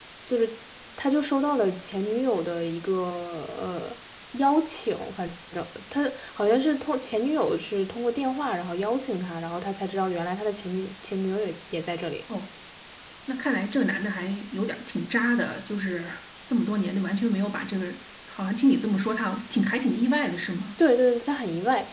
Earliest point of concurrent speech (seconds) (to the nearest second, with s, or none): none